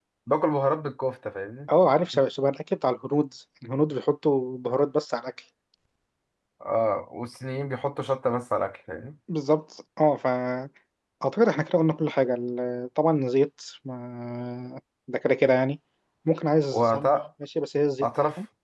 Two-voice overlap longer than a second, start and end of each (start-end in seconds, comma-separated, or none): none